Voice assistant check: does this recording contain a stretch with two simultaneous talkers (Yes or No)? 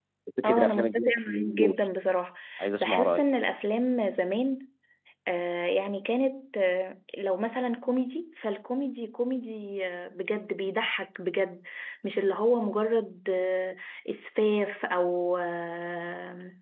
Yes